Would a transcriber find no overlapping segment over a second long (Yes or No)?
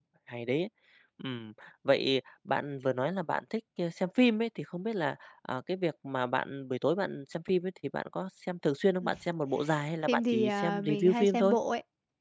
No